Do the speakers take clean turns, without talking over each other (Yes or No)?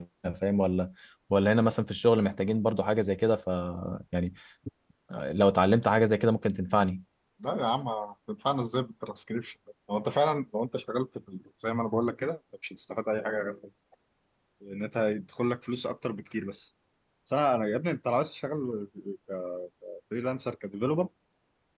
Yes